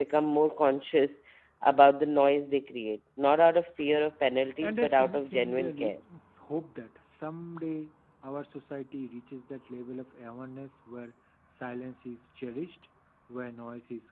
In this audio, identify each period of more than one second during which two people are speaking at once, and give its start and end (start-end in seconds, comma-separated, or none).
4.6-5.9